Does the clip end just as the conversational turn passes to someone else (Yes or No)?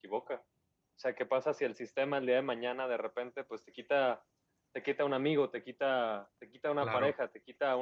No